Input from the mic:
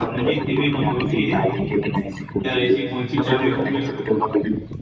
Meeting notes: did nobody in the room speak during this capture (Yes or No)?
No